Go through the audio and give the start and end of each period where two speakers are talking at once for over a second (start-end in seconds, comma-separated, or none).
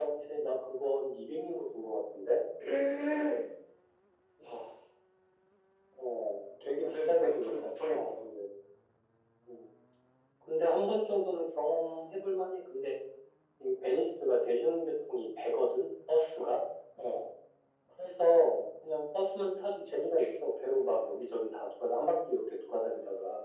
6.7-8.2